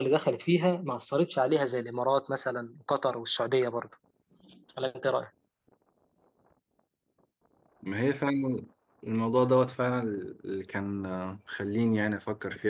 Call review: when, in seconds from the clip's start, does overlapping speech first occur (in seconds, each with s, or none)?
none